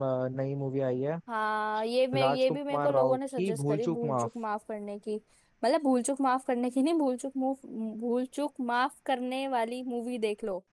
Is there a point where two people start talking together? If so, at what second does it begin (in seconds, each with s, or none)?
2.1 s